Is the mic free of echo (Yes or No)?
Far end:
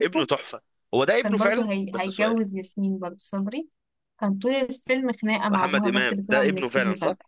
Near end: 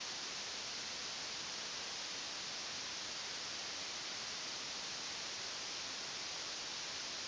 Yes